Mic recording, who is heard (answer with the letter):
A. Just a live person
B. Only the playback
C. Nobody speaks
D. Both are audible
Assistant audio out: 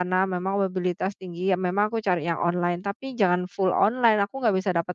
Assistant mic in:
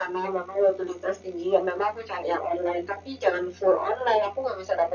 B